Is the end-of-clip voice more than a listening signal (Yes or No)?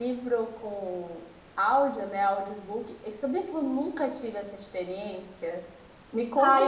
Yes